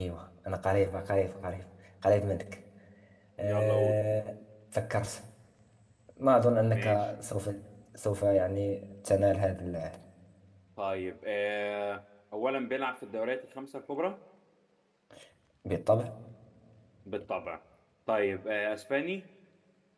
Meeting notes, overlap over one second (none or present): none